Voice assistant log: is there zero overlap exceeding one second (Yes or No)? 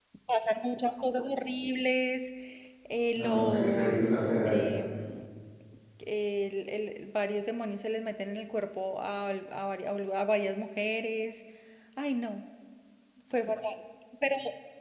No